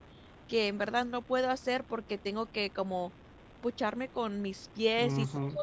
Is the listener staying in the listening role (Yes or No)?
No